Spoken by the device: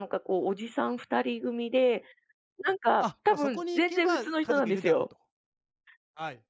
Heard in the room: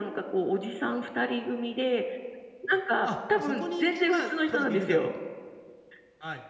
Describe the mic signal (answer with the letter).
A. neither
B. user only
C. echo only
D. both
C